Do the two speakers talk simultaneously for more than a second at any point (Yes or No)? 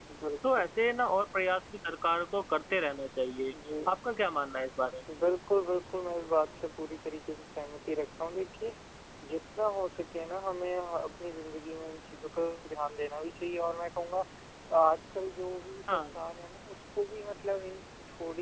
No